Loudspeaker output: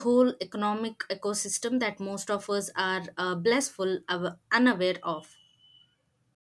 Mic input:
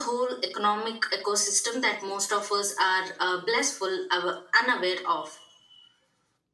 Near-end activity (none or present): none